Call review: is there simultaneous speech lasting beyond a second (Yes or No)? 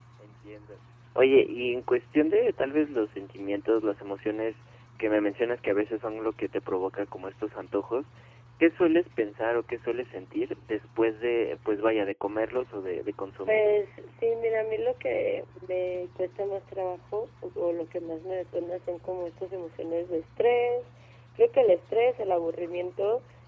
No